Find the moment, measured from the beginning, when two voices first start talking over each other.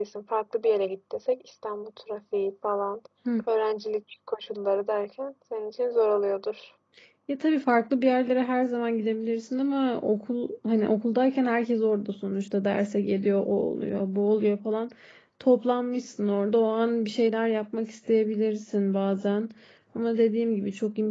none

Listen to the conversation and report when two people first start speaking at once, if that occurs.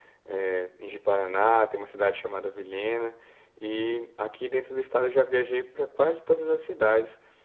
none

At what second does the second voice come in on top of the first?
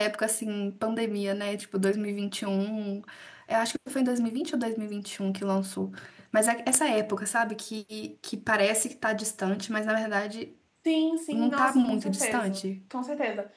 11.3 s

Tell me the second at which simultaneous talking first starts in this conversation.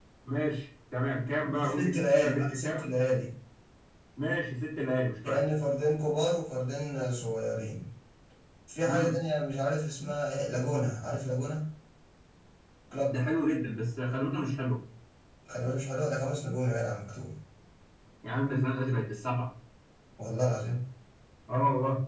1.5 s

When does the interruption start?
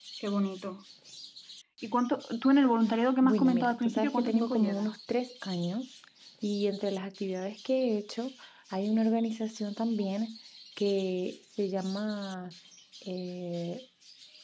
3.2 s

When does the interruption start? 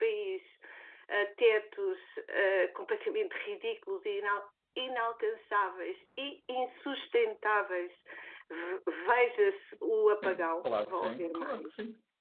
10.2 s

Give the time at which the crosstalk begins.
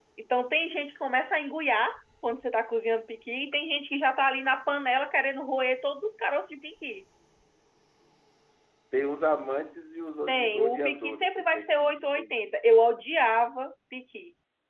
10.3 s

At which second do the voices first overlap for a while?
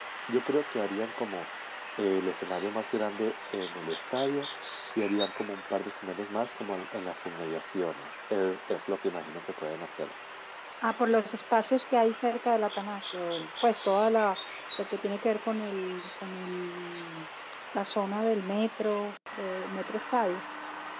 none

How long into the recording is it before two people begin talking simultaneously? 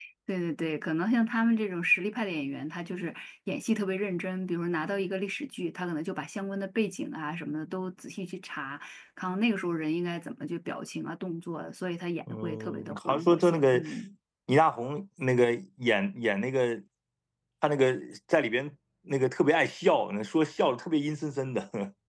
12.3 s

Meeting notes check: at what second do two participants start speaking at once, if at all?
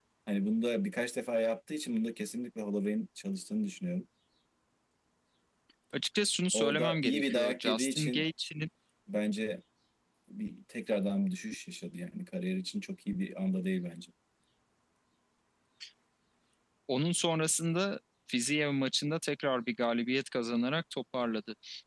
6.5 s

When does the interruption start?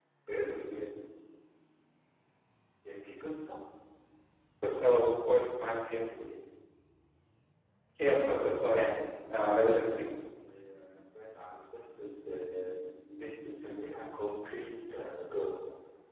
none

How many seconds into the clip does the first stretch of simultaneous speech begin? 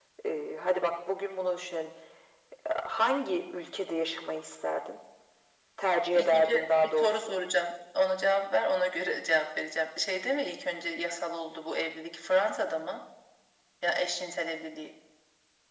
6.1 s

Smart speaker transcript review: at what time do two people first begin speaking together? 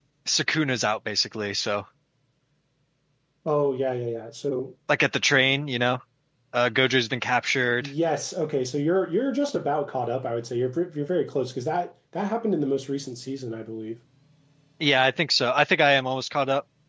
none

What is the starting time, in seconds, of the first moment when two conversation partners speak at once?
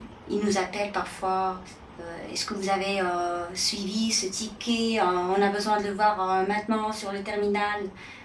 none

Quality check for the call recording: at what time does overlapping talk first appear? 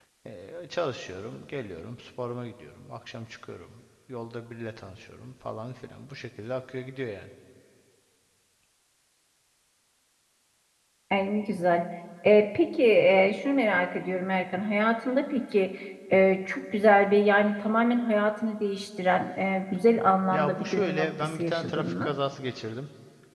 20.3 s

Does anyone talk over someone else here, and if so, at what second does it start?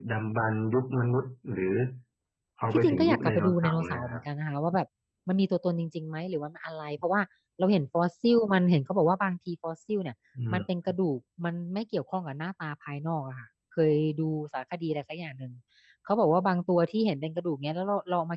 2.7 s

